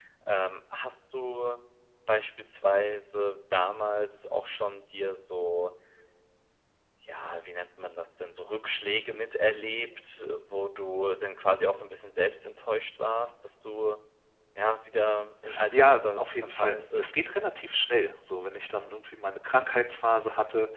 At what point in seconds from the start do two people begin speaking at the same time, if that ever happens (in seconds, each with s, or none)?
15.4 s